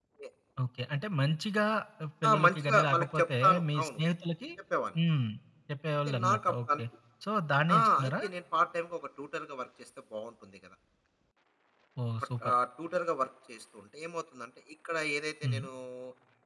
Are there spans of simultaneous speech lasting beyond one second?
Yes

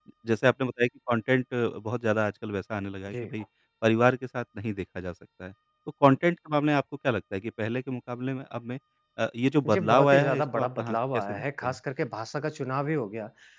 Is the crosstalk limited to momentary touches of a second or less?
No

